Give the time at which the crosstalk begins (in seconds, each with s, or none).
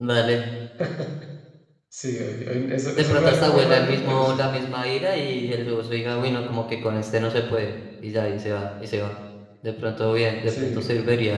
2.9 s